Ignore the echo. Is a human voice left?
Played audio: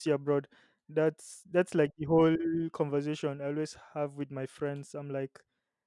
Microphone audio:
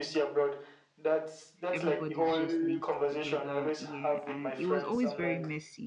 Yes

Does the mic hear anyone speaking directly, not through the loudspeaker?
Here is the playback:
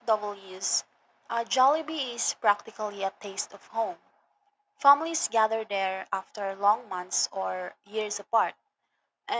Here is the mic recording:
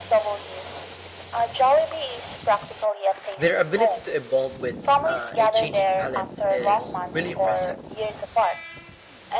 Yes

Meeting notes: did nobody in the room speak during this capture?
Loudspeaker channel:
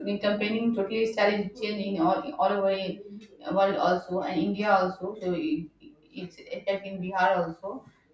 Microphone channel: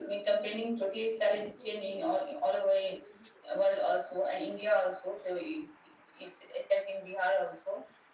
Yes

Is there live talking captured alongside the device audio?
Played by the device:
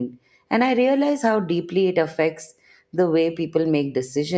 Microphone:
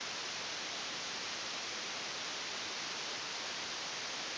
No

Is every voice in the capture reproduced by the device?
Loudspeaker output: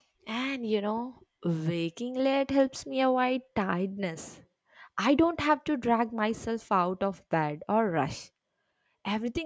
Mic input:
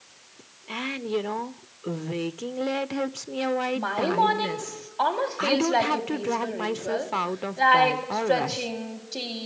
No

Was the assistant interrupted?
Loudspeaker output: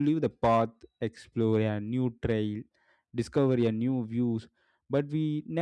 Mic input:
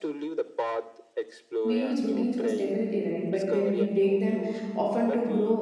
Yes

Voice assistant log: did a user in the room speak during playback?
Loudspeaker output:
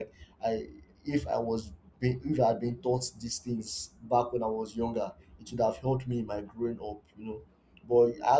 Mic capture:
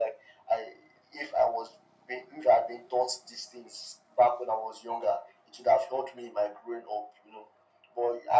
No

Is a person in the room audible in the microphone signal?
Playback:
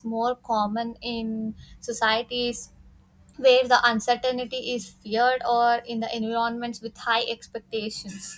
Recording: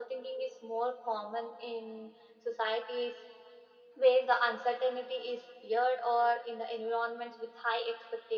No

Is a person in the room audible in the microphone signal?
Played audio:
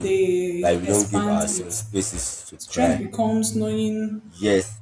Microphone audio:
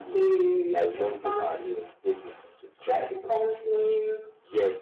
No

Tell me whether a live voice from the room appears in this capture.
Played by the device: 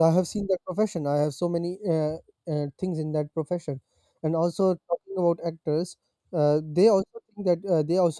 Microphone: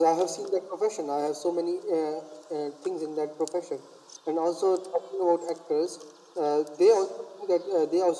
No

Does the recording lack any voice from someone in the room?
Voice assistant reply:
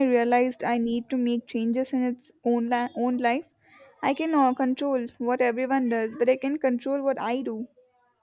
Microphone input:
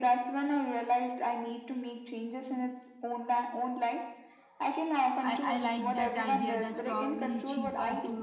No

